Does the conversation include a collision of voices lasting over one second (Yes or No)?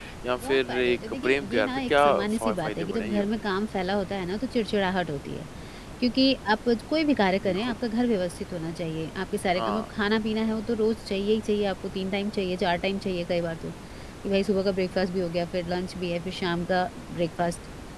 Yes